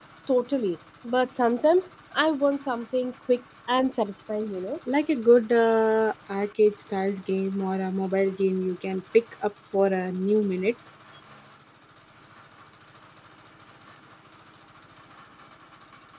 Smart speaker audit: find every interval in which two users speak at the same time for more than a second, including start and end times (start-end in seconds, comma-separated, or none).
none